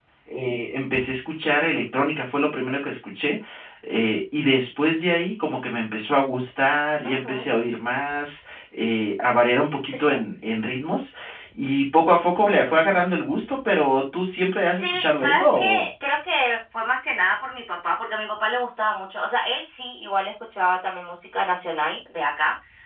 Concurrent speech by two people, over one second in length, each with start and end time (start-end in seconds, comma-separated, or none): 14.7-15.9